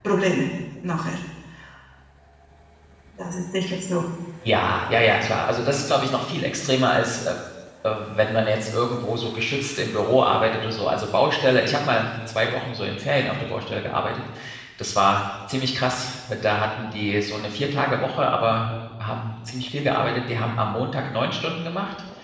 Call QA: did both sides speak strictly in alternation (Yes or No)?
Yes